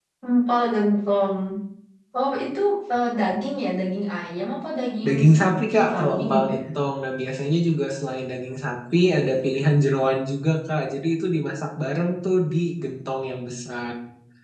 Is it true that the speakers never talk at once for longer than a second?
No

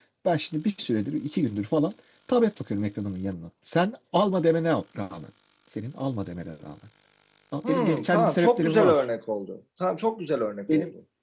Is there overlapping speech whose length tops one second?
Yes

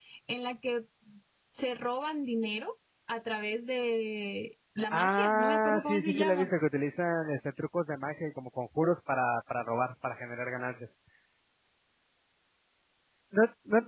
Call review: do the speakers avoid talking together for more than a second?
No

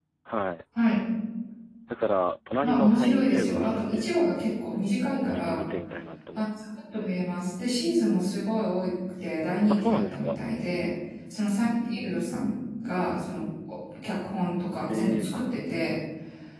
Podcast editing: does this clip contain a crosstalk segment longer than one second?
Yes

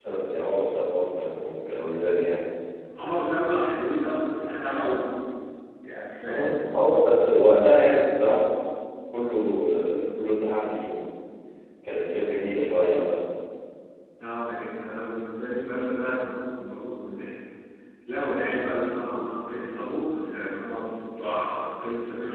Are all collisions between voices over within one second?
Yes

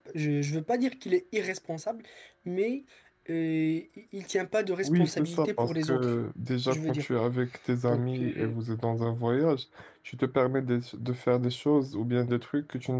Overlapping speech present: Yes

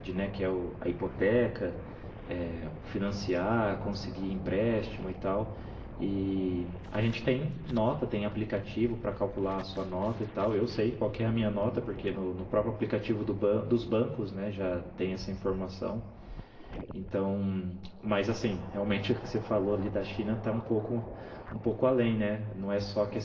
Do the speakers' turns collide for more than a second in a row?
No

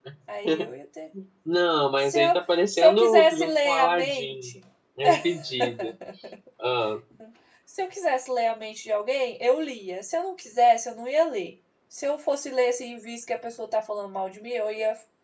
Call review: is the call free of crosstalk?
No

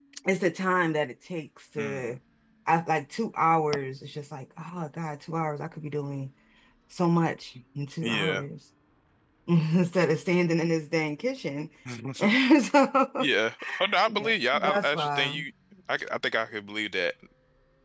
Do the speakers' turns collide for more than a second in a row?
Yes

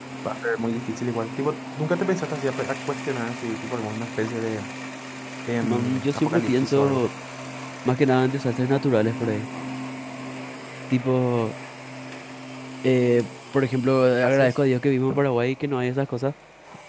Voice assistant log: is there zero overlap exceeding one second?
No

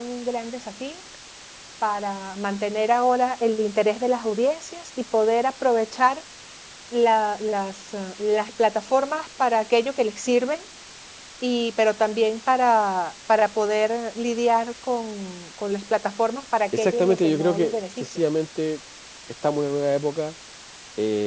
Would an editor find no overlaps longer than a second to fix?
No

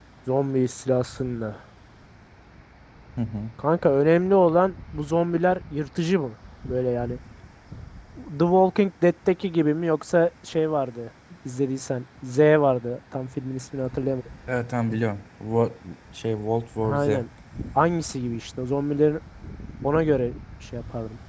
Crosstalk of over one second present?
No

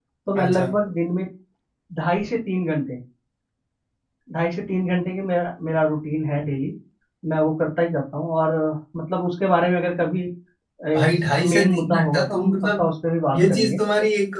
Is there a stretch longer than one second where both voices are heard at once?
Yes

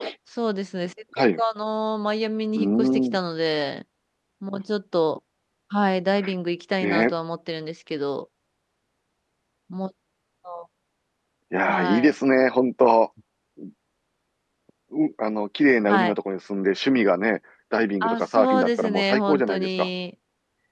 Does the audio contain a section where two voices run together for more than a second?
Yes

